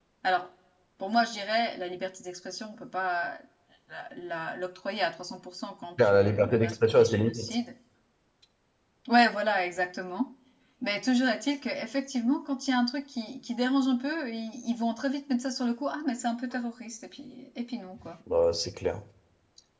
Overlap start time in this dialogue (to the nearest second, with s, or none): 6 s